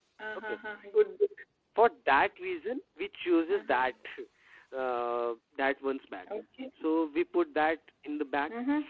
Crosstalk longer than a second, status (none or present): none